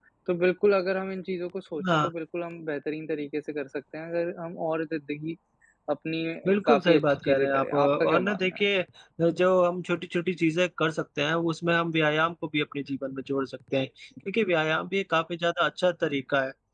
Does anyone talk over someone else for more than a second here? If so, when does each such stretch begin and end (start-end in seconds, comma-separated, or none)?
6.6-8.6